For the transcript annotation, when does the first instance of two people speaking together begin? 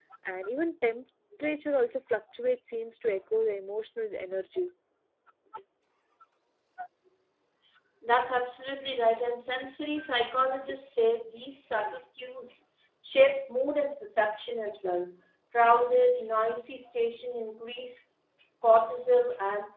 none

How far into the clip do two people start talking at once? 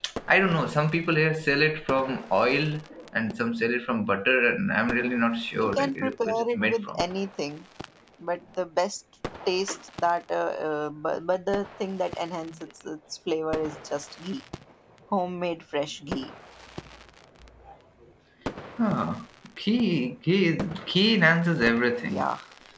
5.5 s

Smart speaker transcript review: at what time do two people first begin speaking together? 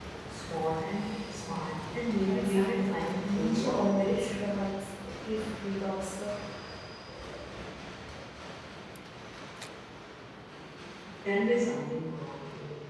2.2 s

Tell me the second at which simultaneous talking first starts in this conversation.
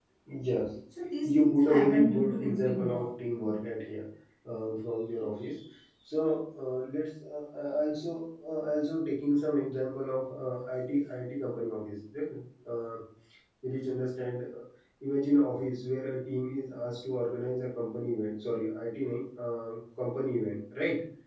1.2 s

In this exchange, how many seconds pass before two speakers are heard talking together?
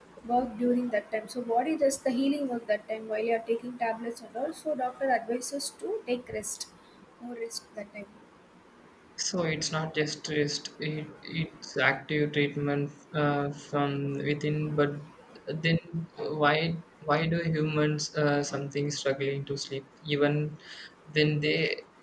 none

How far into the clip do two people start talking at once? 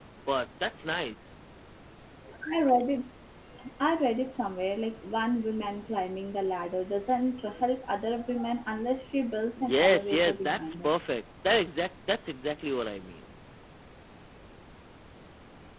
9.6 s

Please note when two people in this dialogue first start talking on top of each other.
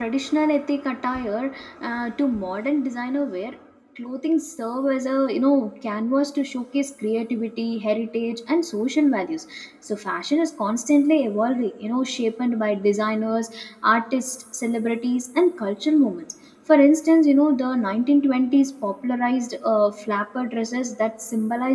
none

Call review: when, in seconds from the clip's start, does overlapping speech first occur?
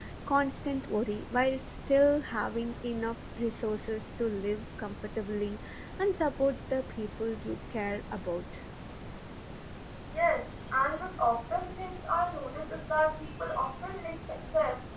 none

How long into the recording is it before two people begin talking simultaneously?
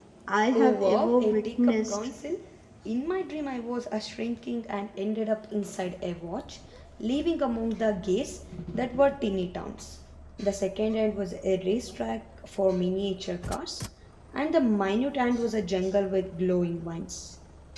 0.5 s

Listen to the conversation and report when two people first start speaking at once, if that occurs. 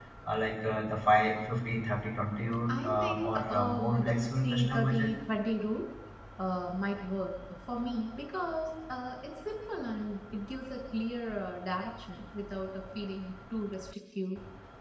2.7 s

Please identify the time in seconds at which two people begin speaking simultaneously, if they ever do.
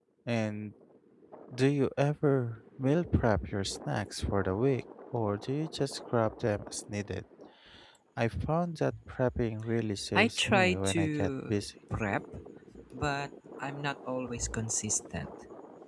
10.2 s

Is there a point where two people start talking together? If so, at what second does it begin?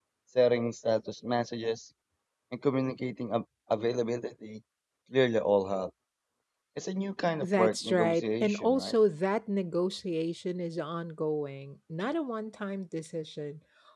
7.4 s

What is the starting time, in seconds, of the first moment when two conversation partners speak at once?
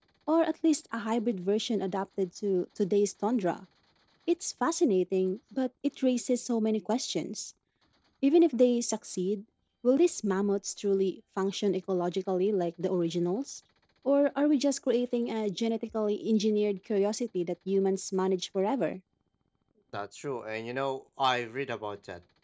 none

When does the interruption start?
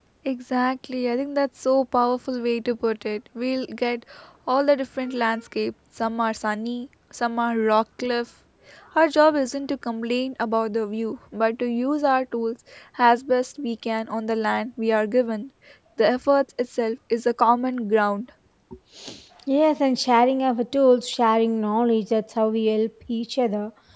none

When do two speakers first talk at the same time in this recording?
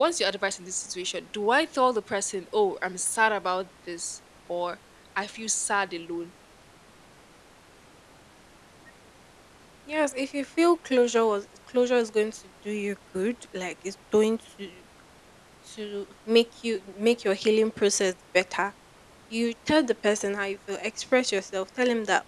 none

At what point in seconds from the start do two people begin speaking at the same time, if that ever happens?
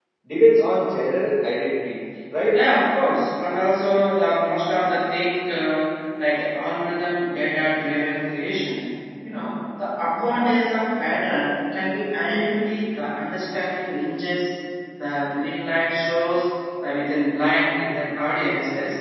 none

